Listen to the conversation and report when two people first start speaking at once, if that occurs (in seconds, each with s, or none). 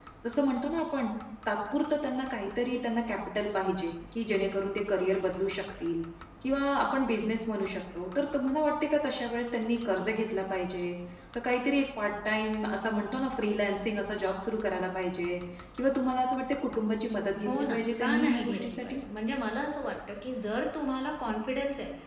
17.4 s